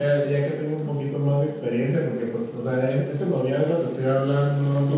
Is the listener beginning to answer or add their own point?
No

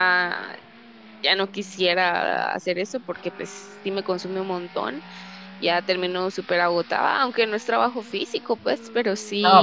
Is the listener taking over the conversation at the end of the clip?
Yes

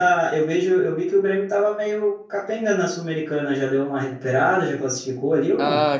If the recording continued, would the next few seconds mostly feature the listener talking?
Yes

